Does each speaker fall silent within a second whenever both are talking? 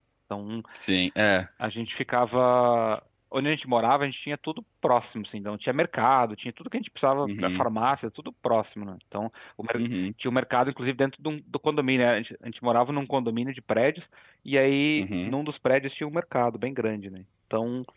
Yes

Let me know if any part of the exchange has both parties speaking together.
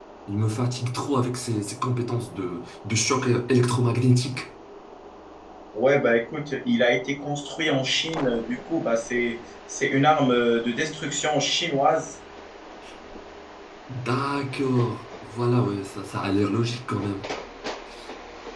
No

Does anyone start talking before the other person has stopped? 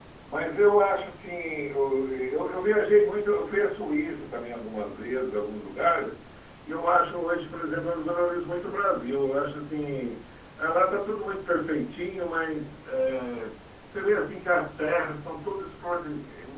No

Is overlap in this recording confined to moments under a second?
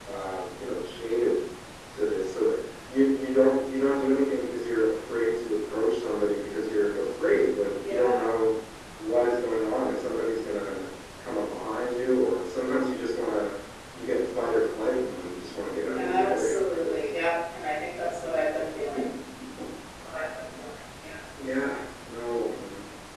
No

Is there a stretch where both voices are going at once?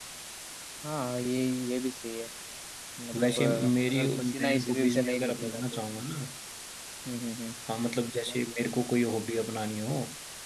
Yes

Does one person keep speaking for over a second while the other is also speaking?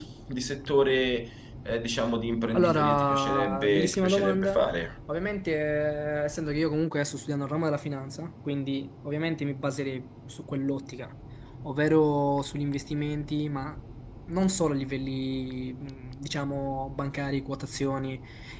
Yes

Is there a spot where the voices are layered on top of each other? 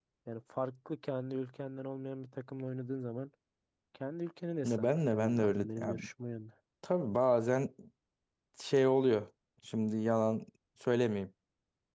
Yes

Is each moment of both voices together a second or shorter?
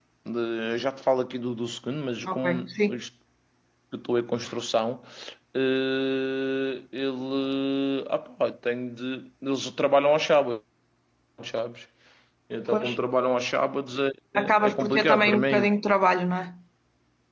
No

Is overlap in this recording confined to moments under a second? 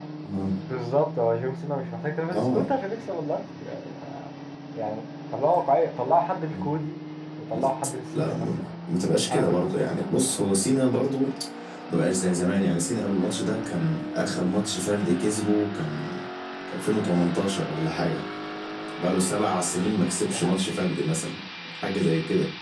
Yes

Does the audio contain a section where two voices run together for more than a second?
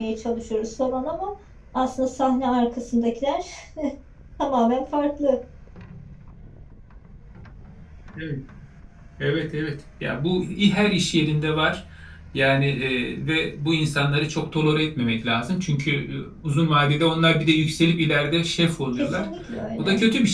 No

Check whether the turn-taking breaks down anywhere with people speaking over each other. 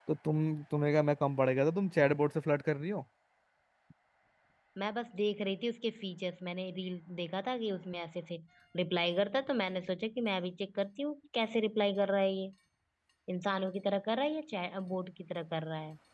No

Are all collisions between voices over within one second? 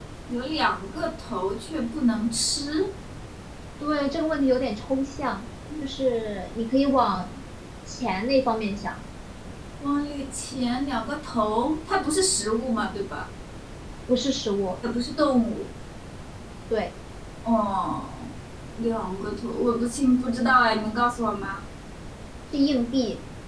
Yes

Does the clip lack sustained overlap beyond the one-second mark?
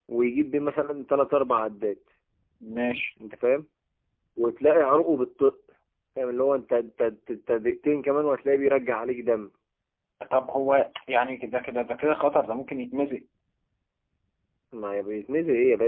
Yes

